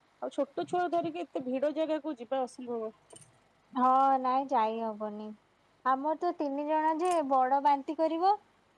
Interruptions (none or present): none